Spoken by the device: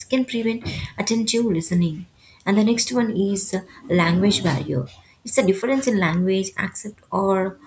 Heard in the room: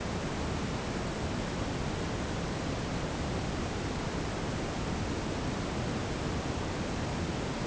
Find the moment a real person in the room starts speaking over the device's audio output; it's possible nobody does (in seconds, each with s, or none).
none